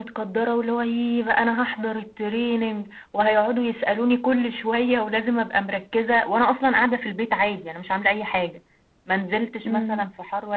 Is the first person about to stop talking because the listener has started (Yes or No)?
No